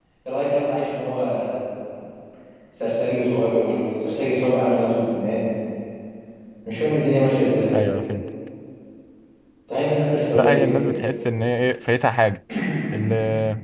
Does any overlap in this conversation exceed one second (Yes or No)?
No